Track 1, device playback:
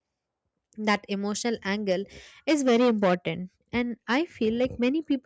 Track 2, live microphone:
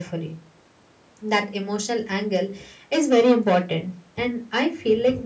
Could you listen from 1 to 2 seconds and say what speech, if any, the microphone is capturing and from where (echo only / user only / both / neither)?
echo only